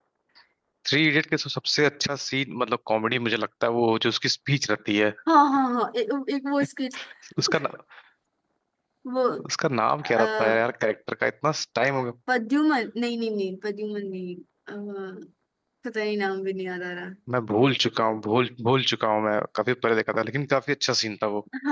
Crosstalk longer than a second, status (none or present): none